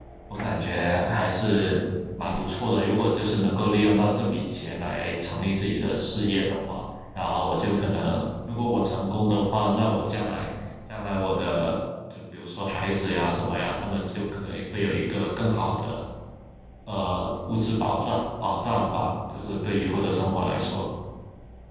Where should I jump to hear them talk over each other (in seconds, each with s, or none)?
none